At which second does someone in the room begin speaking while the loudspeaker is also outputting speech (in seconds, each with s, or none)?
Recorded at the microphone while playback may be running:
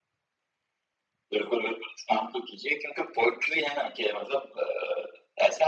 none